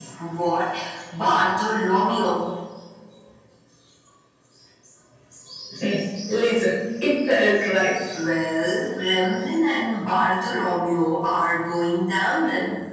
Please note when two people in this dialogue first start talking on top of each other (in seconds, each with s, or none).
none